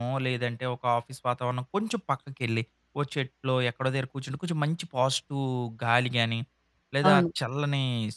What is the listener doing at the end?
listening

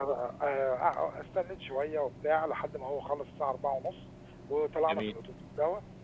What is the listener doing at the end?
listening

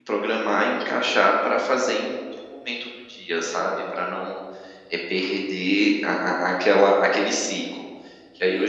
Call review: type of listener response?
taking over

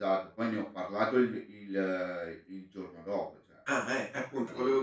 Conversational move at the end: taking over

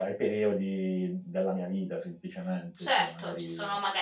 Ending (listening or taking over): taking over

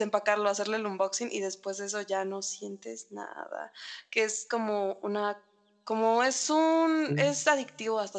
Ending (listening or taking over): listening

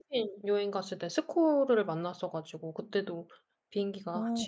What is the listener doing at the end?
listening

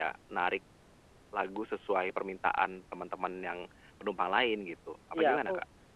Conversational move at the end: taking over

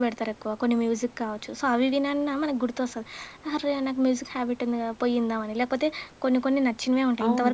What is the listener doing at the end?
taking over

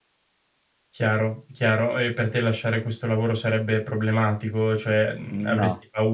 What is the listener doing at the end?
listening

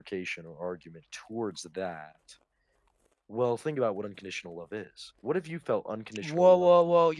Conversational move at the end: taking over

